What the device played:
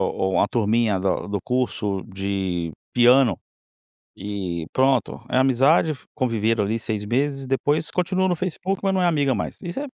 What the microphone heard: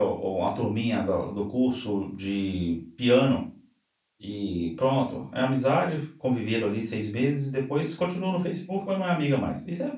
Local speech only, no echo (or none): none